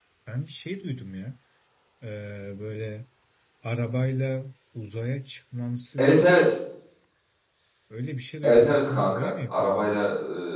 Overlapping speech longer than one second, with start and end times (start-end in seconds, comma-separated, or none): 8.4-10.0